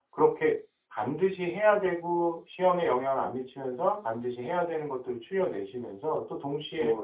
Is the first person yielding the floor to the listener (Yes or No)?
No